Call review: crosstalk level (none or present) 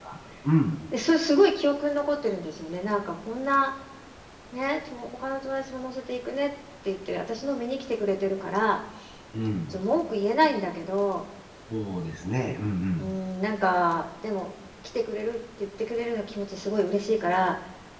none